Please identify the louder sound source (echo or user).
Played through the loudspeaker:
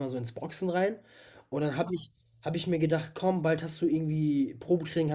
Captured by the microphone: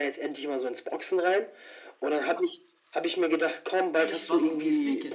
echo